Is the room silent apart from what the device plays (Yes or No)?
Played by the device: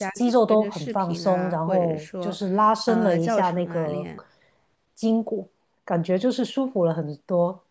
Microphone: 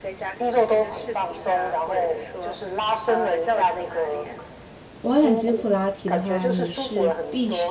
No